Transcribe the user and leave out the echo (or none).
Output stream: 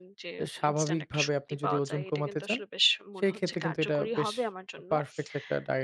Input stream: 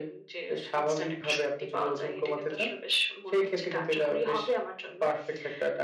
none